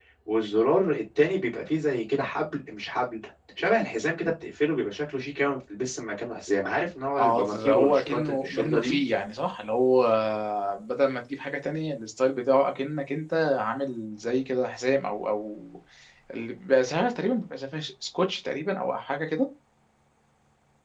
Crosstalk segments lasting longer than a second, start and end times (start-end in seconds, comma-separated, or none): 7.2-9.0